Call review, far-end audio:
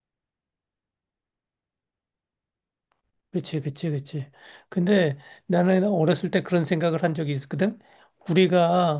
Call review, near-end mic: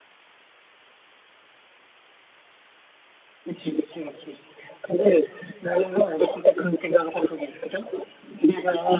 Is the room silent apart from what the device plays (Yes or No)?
Yes